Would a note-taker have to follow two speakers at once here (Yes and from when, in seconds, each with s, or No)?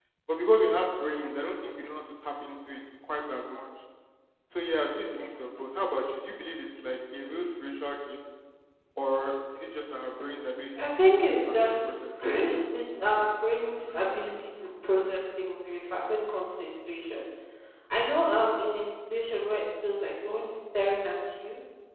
Yes, from 10.8 s